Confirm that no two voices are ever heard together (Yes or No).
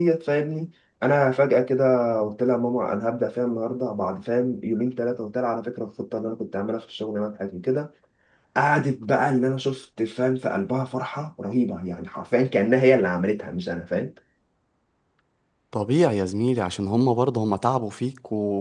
Yes